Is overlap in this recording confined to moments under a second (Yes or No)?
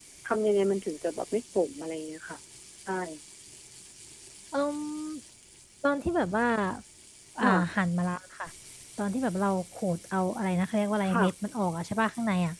Yes